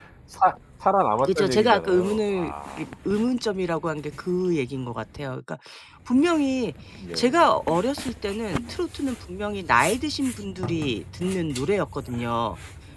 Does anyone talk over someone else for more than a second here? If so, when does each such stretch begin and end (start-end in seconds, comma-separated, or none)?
1.3-2.8